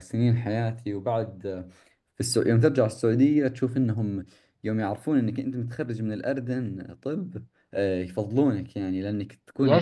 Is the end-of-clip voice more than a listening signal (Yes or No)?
No